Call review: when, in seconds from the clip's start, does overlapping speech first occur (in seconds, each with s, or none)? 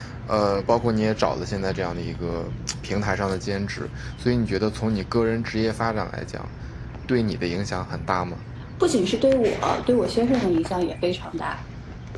none